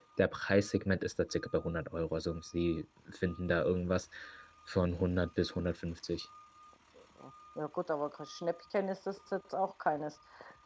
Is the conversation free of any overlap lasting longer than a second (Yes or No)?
Yes